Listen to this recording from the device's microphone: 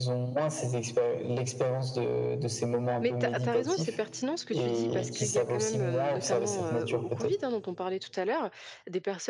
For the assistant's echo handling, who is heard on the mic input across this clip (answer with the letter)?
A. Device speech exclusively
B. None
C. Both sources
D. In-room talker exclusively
C